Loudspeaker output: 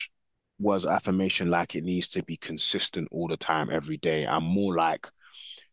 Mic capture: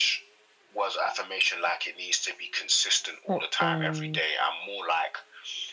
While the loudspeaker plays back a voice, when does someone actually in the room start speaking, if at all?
3.3 s

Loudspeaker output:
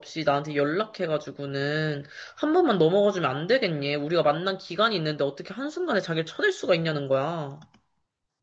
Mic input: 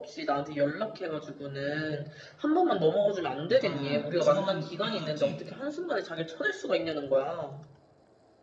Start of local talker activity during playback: 3.5 s

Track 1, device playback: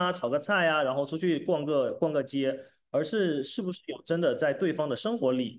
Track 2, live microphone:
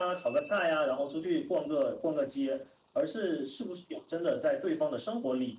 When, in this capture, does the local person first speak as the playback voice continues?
none

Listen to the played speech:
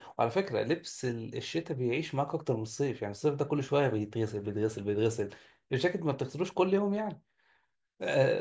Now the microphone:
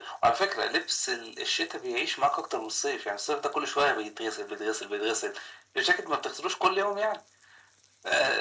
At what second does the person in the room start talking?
none

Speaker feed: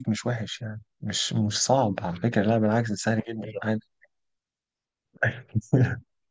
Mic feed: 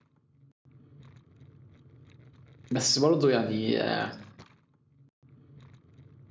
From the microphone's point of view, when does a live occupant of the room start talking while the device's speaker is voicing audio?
2.7 s

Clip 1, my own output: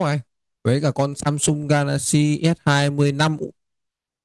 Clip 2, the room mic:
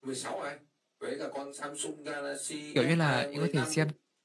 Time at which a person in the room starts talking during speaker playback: 2.7 s

